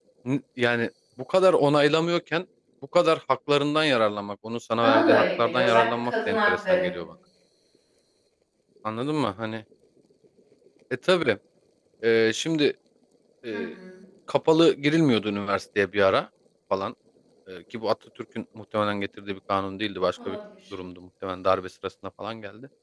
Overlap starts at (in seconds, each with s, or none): 4.8 s